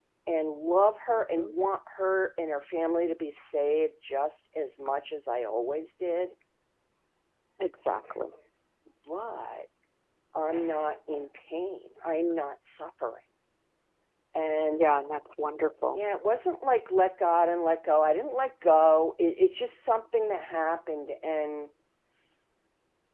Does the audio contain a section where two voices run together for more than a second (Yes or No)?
No